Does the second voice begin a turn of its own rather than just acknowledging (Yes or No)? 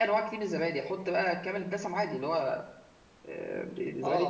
Yes